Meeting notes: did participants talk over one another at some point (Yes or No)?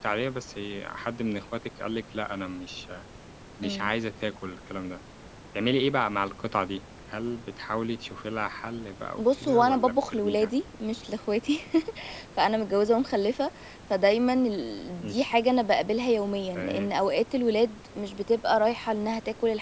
Yes